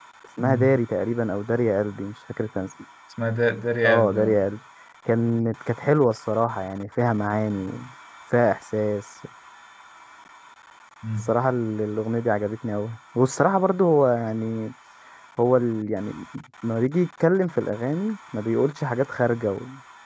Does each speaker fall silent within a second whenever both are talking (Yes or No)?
Yes